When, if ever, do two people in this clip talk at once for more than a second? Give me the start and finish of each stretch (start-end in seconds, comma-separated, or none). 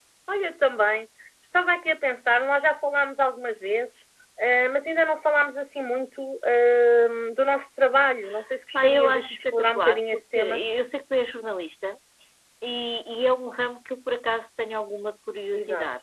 8.7-10.6